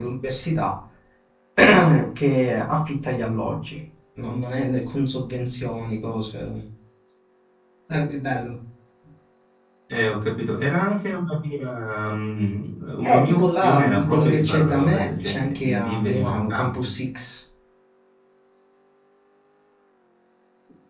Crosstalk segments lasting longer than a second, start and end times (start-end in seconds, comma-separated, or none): 13.0-16.9